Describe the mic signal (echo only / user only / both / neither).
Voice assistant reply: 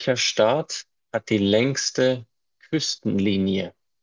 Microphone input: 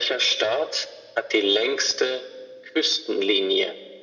echo only